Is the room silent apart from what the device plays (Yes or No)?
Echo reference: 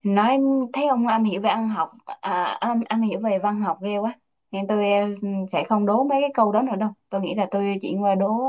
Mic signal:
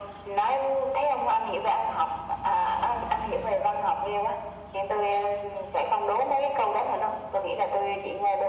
Yes